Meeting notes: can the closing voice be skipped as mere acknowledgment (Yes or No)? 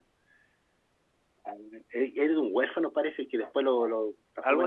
Yes